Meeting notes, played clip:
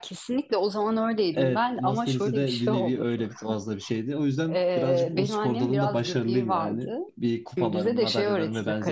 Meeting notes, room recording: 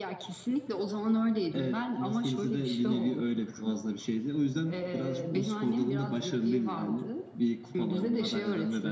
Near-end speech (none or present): none